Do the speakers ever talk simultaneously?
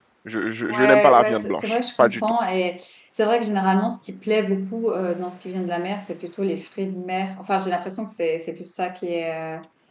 Yes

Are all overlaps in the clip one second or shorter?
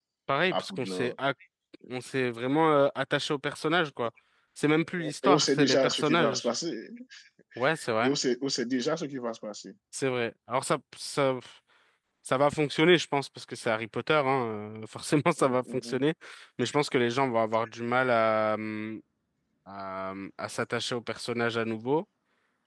No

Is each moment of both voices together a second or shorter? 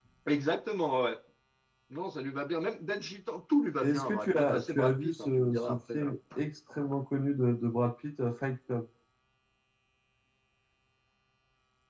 No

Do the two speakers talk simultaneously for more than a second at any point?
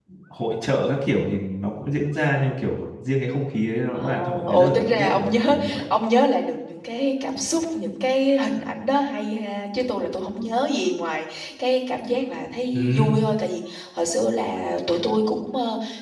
Yes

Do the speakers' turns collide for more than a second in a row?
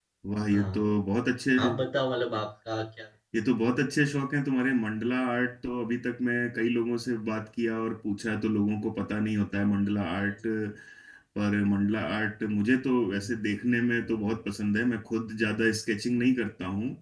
No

